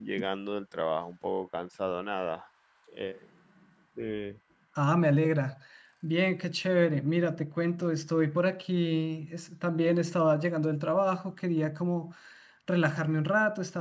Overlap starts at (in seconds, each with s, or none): none